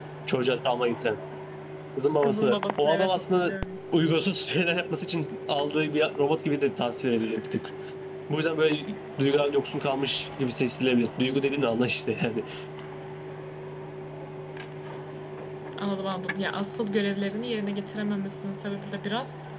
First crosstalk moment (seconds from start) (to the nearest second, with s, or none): 2 s